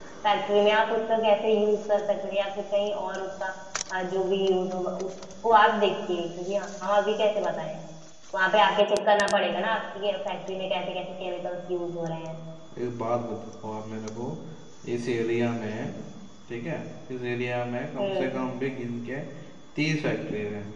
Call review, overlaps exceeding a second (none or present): none